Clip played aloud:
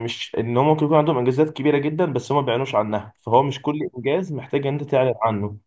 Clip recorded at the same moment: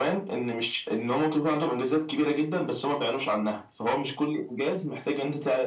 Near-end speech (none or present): none